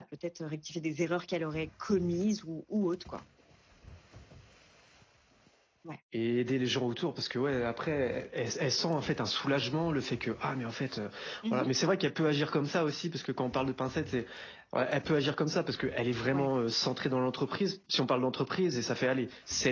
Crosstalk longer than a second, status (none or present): none